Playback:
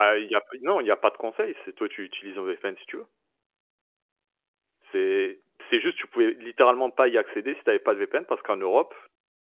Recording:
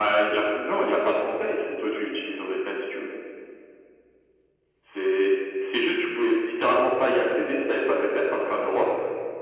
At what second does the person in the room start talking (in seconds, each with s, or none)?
none